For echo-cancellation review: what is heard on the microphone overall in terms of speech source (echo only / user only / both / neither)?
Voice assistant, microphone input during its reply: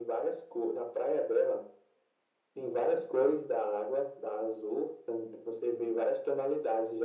echo only